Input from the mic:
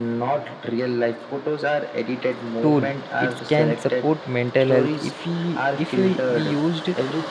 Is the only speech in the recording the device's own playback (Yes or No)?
No